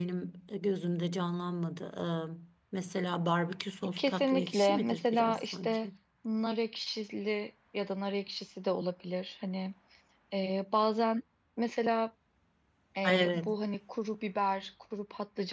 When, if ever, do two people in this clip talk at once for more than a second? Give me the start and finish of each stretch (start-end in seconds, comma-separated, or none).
4.0-5.9